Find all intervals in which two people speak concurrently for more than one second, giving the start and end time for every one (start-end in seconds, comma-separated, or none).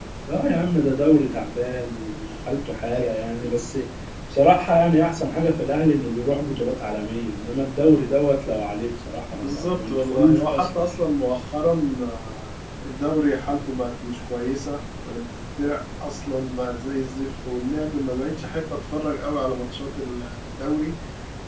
9.3-10.9